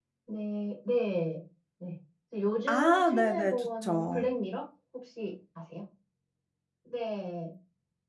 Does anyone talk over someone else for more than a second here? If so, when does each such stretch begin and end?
2.7-4.3

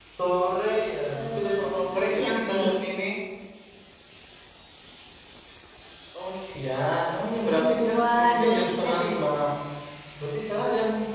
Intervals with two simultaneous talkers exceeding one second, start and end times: 1.2-2.6, 7.6-8.9

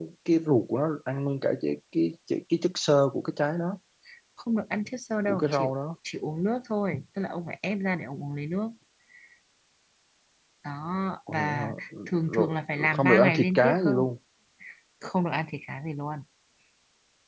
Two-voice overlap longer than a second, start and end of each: 12.2-14.0

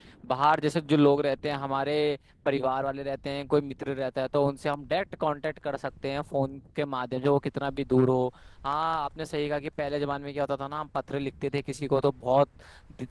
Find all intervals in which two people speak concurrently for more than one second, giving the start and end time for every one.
none

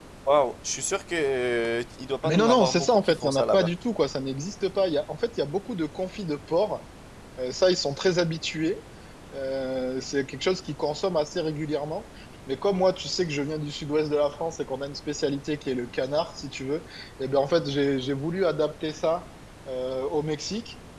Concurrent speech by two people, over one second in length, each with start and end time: 2.2-3.7

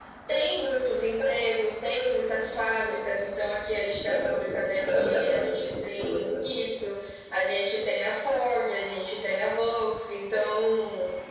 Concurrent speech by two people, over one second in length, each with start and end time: 4.1-6.5

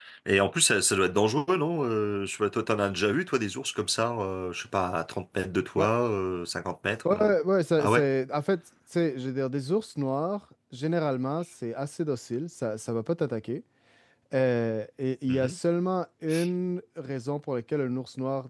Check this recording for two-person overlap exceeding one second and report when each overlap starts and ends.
none

